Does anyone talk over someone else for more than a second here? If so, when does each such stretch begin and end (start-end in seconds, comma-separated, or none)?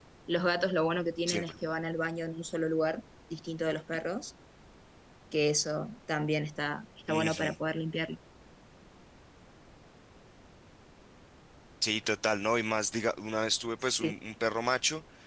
none